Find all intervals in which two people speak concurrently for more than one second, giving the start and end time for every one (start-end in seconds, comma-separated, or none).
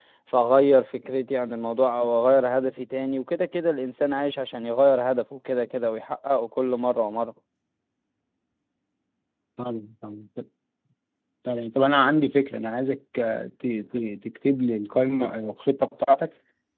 none